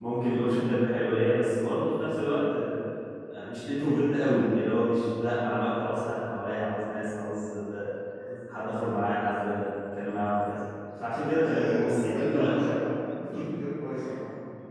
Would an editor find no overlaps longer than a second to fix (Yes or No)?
No